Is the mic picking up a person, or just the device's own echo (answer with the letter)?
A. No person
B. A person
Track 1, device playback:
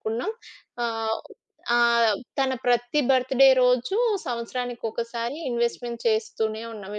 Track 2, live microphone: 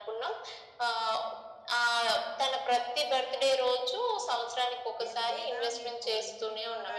B